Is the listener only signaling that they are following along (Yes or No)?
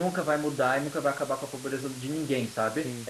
Yes